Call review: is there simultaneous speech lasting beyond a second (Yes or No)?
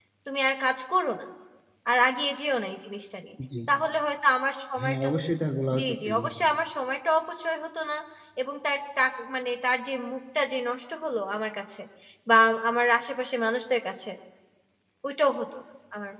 No